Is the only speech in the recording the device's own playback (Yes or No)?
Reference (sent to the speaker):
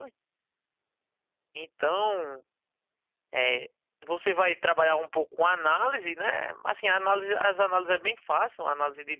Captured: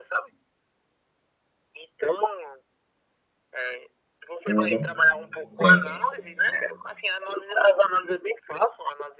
No